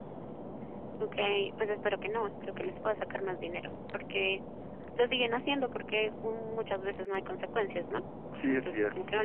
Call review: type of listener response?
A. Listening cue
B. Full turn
B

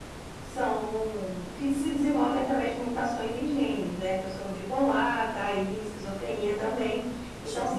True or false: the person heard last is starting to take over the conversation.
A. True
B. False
B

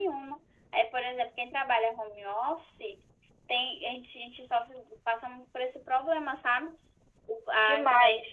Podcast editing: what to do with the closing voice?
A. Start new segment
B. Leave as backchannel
B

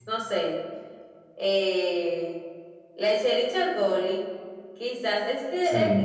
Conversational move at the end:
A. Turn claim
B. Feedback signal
B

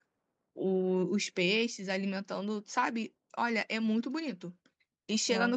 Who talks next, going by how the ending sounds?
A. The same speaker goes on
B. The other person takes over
A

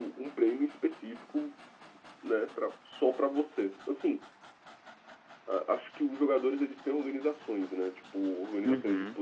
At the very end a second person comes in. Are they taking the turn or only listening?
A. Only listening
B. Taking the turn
A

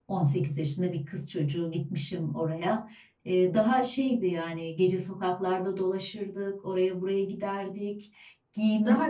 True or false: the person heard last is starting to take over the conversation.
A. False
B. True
A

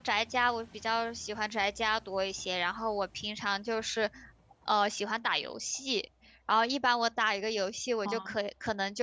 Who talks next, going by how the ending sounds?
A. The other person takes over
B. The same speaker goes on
B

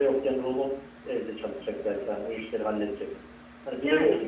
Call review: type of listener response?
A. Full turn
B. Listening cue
B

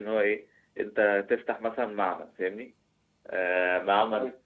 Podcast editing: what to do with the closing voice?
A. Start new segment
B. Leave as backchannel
B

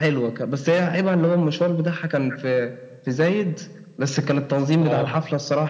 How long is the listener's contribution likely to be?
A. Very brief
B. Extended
A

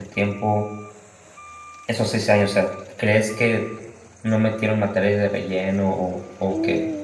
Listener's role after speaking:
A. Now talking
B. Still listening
A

